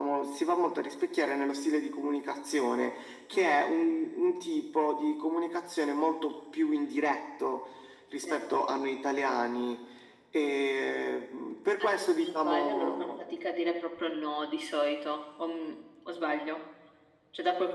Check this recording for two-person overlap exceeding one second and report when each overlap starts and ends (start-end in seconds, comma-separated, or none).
11.8-13.2